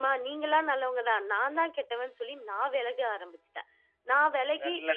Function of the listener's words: listening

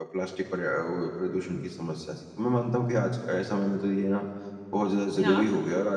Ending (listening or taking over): listening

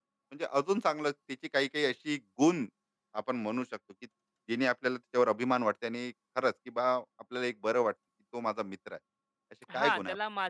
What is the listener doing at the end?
taking over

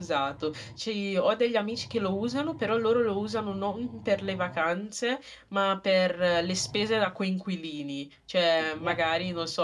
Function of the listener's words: listening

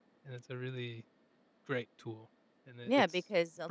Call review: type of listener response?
taking over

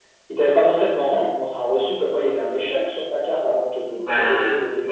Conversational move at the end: taking over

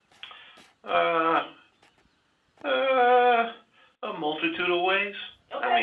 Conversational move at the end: listening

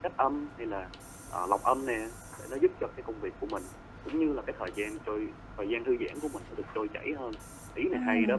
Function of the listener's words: taking over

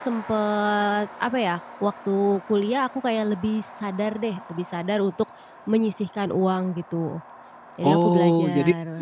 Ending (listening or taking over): taking over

